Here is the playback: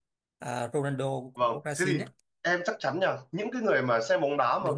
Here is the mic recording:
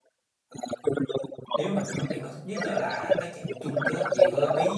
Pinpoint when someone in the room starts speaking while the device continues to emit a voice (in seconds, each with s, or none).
1.5 s